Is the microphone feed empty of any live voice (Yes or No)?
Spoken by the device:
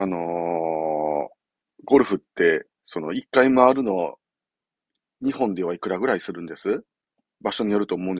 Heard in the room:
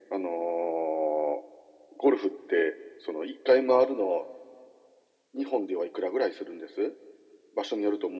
Yes